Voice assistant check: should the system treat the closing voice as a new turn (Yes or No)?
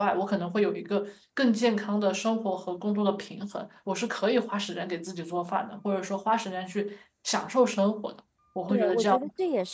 Yes